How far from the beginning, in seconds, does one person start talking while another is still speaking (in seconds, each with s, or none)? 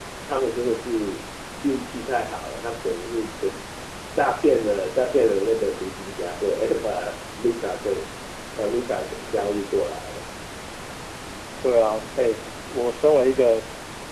none